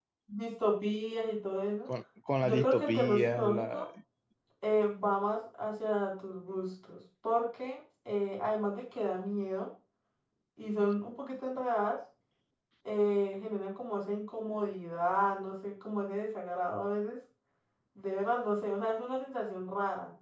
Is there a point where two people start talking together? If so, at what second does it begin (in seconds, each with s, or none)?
2.4 s